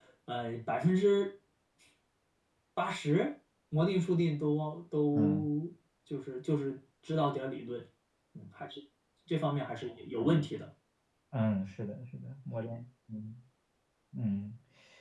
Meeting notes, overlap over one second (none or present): none